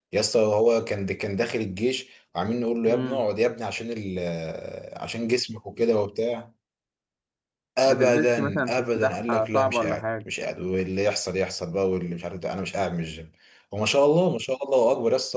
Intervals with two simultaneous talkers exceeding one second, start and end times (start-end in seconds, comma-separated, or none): 7.9-10.0